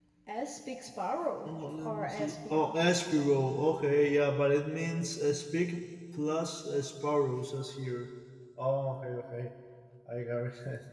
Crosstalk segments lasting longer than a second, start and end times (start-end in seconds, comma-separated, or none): 1.4-2.8